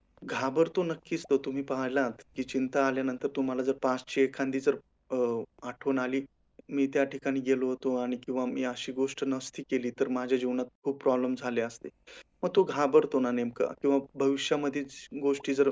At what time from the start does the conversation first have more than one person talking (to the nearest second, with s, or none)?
none